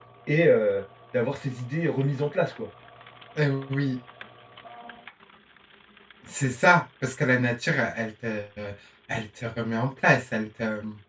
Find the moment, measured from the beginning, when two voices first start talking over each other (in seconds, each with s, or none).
none